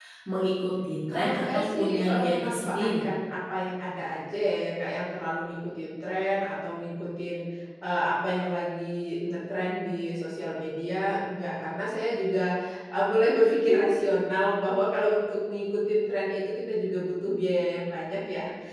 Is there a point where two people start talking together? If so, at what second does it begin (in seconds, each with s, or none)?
1.1 s